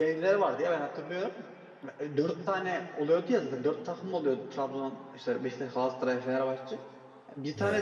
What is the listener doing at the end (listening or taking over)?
listening